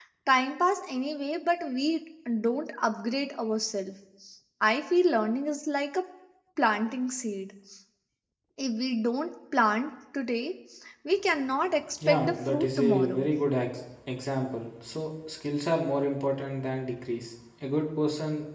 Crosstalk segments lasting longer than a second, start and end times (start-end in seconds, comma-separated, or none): 12.1-13.3